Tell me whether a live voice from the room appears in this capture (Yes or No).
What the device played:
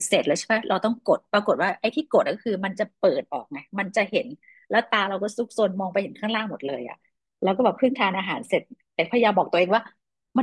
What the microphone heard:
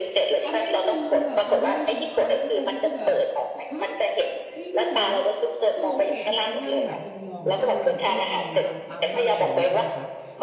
Yes